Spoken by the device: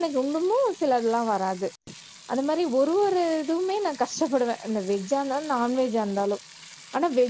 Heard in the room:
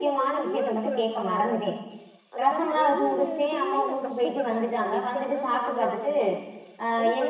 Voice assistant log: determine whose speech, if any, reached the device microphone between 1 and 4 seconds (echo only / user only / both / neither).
both